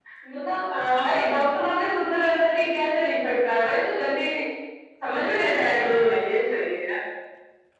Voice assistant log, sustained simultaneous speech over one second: none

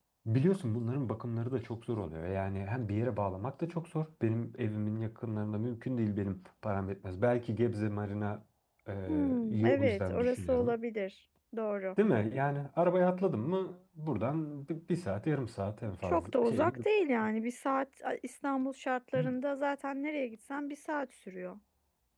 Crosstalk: present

